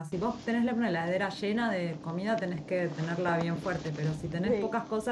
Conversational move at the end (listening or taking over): listening